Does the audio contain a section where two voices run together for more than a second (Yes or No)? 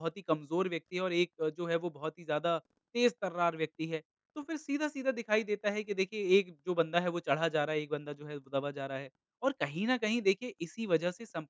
No